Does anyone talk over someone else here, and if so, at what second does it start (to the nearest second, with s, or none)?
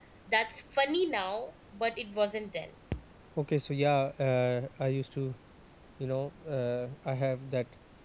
none